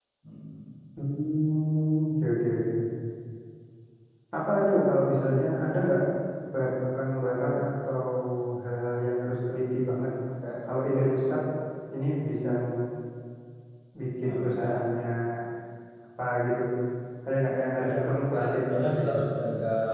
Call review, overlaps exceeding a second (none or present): present